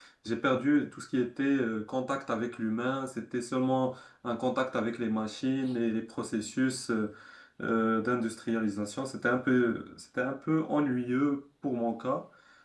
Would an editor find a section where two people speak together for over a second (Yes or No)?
No